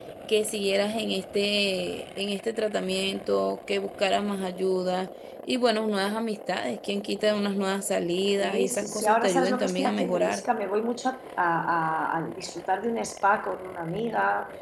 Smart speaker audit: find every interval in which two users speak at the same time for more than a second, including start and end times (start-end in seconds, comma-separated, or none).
8.4-10.4